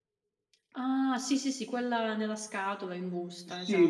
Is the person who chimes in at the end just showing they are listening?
No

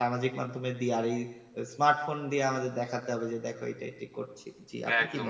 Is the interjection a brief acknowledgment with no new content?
No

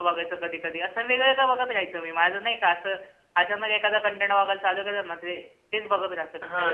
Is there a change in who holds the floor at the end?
Yes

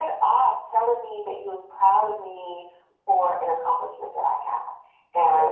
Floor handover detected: No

